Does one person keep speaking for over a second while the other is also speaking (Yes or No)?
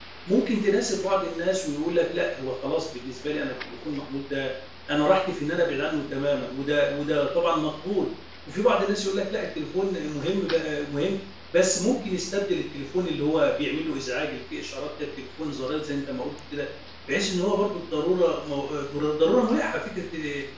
No